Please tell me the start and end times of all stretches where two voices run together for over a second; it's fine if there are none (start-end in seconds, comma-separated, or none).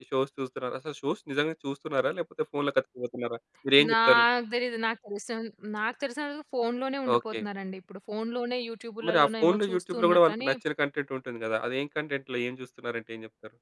9.1-10.5